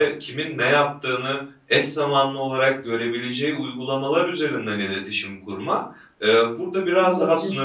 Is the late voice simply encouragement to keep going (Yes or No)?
Yes